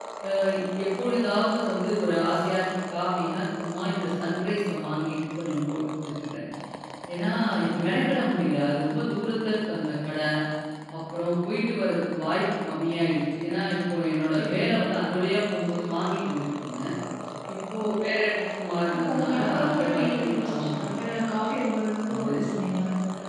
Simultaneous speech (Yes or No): Yes